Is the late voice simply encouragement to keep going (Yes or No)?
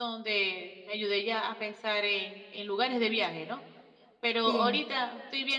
Yes